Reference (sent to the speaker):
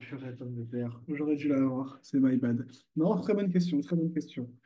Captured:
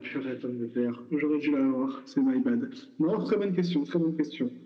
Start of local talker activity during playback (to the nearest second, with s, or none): none